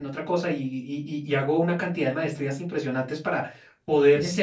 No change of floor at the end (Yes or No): Yes